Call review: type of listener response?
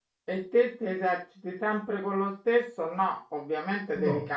listening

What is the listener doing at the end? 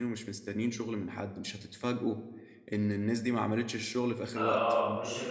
taking over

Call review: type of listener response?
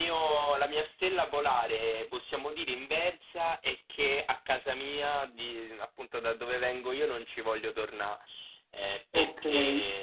listening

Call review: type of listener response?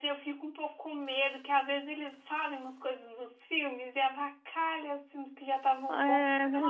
taking over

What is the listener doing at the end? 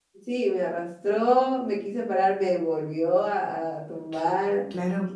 listening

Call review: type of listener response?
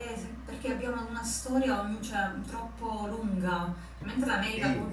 listening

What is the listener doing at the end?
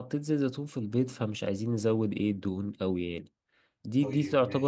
listening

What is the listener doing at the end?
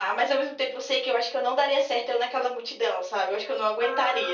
taking over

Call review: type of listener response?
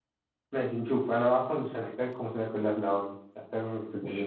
taking over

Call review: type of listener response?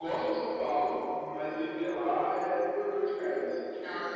taking over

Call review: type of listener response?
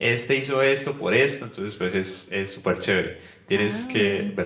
taking over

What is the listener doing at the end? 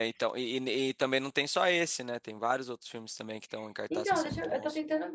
taking over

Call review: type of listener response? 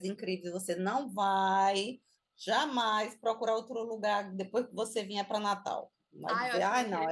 taking over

